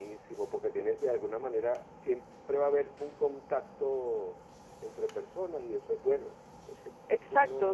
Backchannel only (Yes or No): No